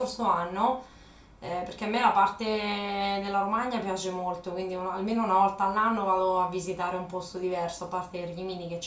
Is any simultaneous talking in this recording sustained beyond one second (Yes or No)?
No